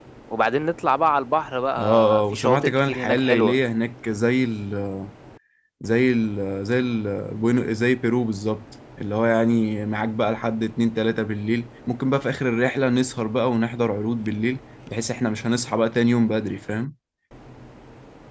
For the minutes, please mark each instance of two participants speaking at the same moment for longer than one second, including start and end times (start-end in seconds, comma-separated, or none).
1.8-3.6